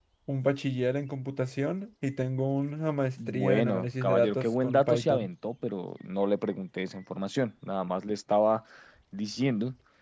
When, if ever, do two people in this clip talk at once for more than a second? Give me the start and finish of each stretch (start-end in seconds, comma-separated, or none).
3.3-5.3